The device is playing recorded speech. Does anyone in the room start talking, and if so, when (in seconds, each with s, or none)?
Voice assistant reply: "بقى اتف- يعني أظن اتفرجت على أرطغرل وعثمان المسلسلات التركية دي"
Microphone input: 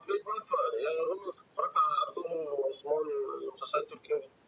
none